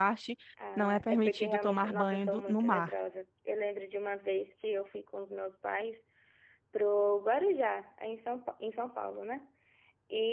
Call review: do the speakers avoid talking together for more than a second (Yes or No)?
No